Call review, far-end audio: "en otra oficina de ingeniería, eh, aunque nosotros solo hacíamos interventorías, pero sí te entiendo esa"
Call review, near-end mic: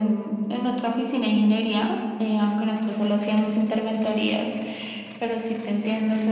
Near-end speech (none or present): none